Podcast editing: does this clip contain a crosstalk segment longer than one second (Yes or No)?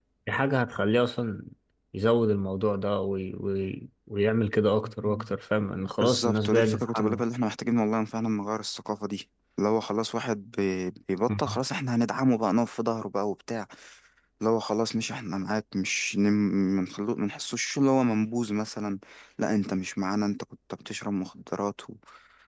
Yes